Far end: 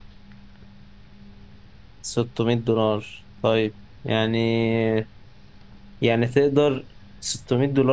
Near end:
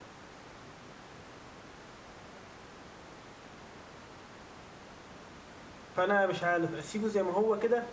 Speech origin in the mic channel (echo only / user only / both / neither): user only